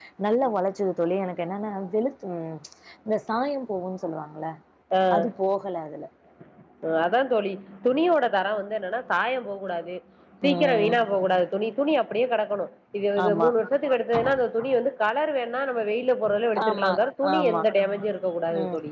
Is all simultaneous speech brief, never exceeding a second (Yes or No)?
Yes